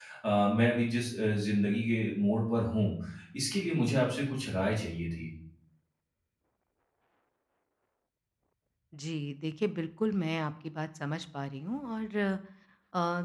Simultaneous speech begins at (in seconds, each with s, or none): none